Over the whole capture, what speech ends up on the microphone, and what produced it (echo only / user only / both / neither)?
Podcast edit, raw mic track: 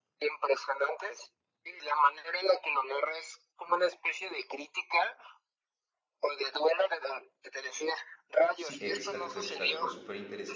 both